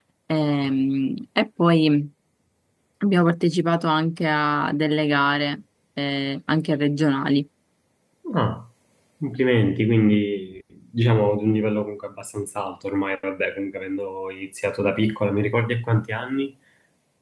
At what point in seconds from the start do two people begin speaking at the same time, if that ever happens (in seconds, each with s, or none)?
none